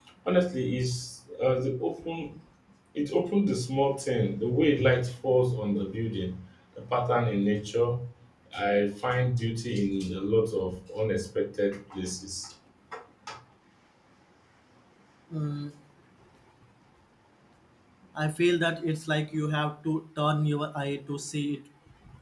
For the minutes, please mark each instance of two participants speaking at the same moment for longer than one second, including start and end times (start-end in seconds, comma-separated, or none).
none